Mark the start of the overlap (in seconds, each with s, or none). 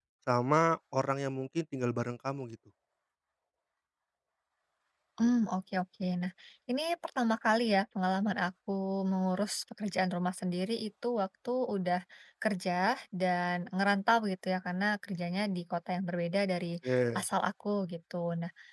none